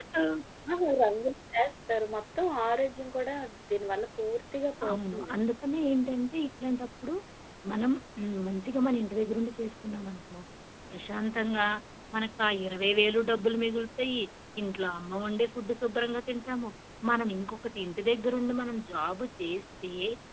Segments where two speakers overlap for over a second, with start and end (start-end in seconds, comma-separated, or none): none